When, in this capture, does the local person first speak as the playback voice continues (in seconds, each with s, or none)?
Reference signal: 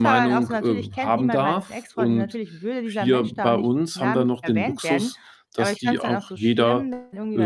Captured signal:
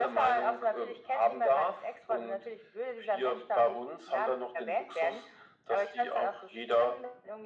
none